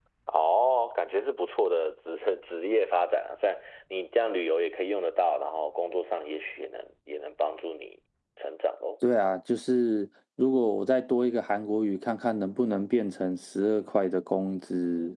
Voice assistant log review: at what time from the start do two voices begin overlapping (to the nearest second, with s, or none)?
none